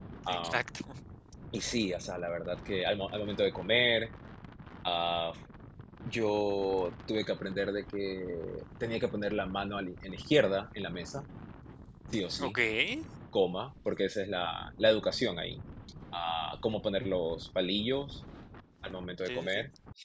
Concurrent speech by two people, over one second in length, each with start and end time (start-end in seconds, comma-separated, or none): none